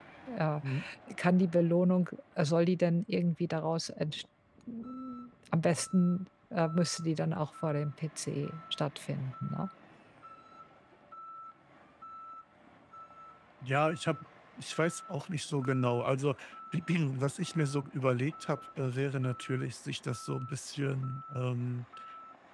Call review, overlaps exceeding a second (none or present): none